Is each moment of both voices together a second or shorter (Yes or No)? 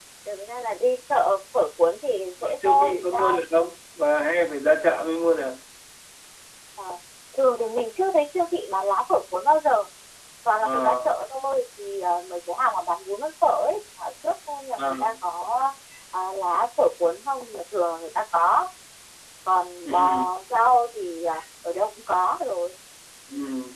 No